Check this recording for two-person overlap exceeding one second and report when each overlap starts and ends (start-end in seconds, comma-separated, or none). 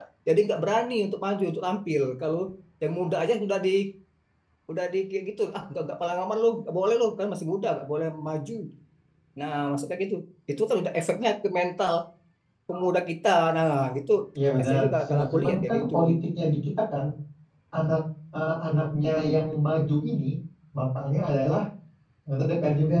14.6-15.9